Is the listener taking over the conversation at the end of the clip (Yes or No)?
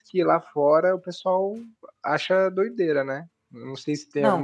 Yes